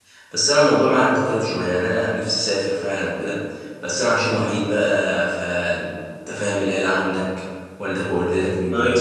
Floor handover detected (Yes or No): No